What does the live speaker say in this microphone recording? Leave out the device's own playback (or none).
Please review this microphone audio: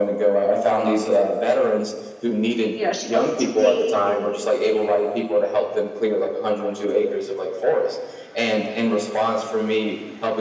you know, she wants to date and